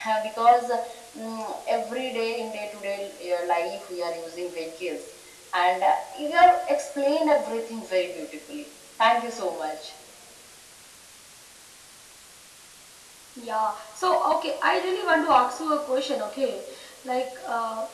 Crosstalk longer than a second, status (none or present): none